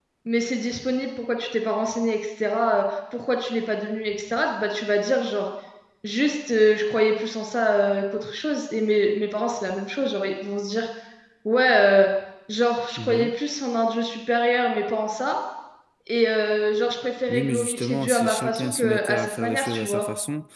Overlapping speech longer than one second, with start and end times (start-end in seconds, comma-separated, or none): 17.3-20.0